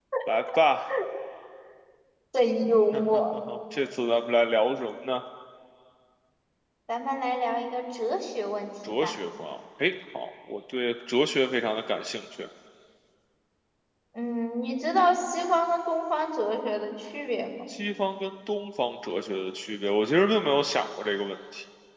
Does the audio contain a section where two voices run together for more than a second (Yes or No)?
No